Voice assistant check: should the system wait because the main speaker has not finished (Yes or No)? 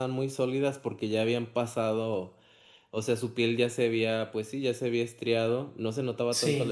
Yes